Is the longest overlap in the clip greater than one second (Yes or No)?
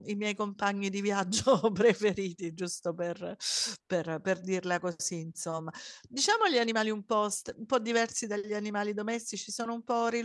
No